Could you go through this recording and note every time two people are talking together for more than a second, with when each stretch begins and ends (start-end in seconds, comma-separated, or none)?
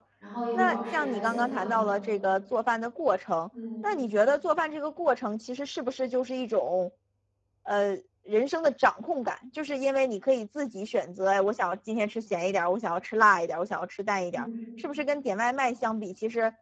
0.5-2.0